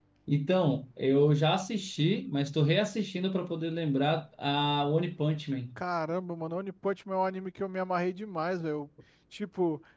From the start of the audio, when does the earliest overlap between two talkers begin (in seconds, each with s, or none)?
none